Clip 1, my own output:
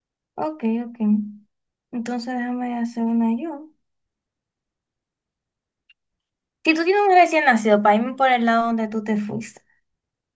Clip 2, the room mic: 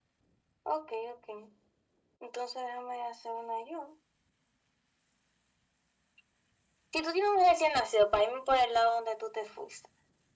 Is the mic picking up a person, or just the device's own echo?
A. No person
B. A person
A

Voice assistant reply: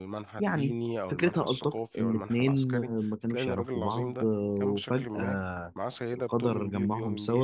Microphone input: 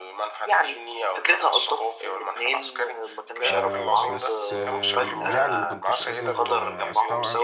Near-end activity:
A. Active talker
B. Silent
A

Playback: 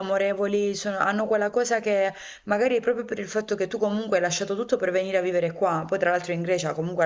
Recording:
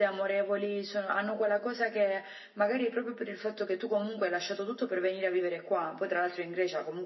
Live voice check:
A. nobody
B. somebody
A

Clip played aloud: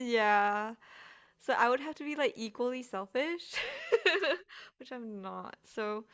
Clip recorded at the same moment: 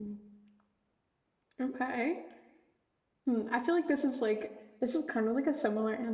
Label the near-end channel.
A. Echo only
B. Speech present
B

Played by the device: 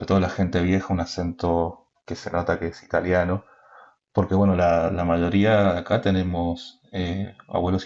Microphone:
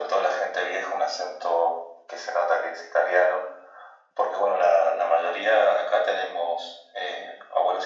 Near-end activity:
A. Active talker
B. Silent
B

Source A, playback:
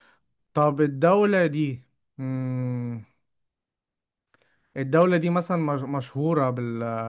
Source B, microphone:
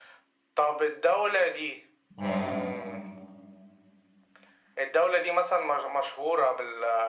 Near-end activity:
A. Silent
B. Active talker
B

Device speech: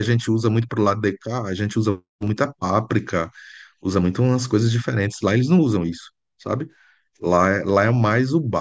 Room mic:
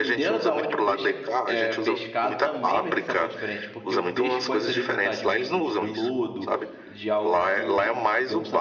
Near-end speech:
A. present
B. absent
A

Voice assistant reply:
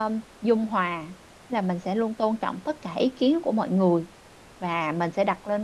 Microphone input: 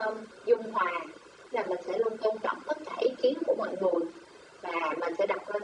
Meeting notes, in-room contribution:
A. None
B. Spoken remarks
A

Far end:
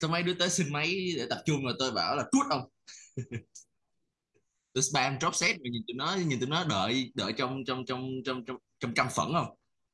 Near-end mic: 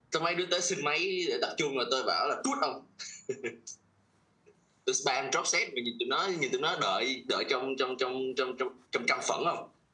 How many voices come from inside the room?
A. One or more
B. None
B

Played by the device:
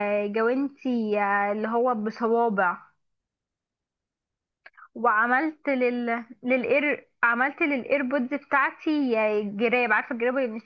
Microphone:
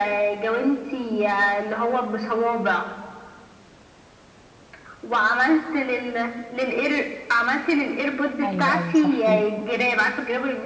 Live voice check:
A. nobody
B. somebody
B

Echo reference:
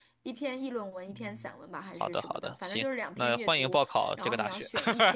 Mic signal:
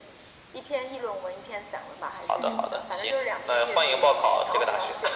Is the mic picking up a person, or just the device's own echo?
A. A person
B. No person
A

